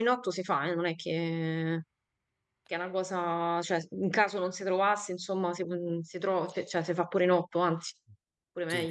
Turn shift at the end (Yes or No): Yes